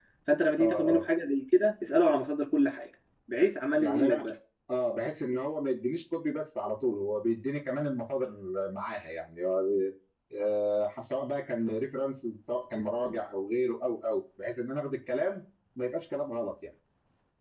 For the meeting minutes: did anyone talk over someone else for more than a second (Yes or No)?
No